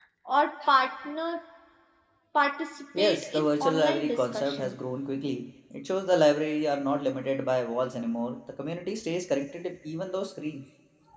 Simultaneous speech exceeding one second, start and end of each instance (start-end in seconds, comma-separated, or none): 3.0-4.8